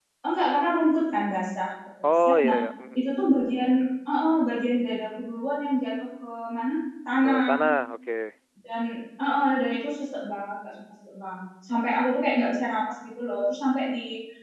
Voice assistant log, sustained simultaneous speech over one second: none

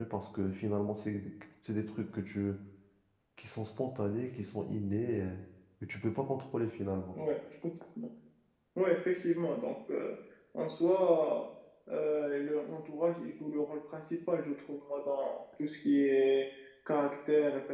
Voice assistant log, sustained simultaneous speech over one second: none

